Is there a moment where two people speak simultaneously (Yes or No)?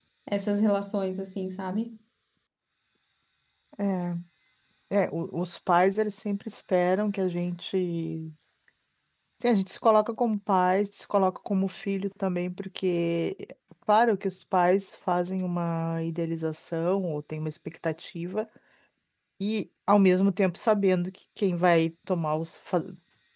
No